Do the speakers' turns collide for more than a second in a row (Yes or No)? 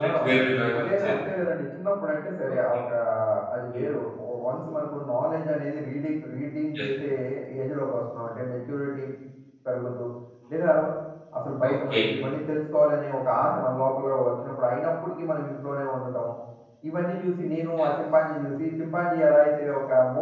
No